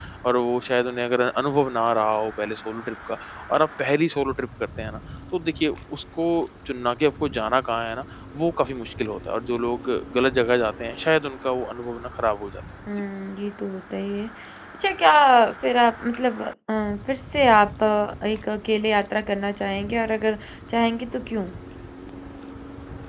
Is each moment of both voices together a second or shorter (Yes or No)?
Yes